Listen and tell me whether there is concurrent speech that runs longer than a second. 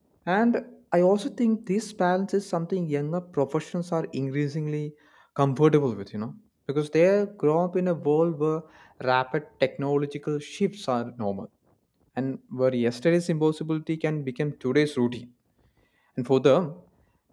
No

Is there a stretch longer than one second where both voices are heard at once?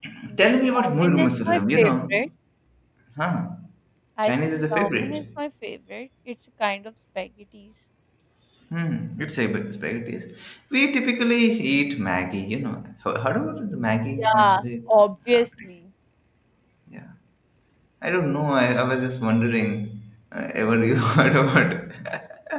Yes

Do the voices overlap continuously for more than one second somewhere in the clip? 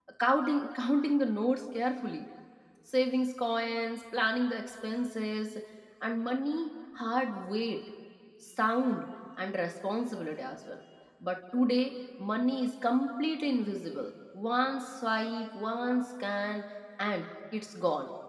No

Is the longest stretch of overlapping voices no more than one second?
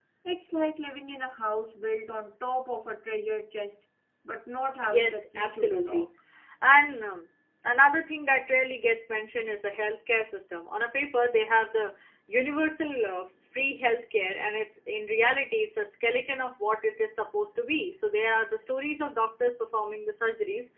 No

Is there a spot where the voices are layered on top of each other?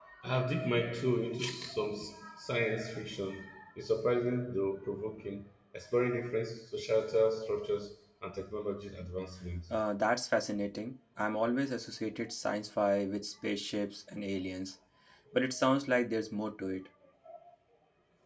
No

